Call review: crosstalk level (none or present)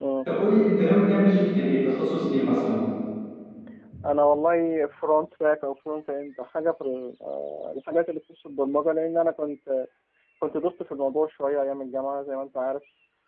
none